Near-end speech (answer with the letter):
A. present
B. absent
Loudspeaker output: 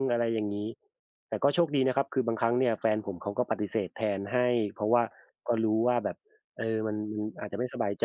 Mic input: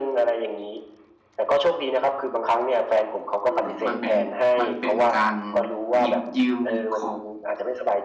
A